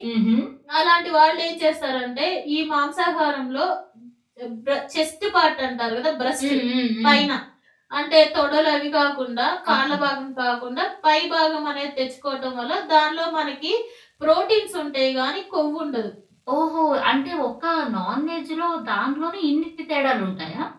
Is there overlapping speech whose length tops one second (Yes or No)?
No